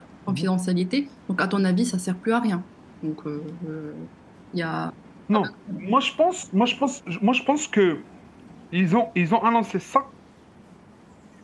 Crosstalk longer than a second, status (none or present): none